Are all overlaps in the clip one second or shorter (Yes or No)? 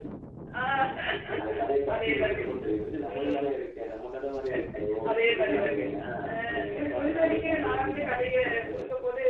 No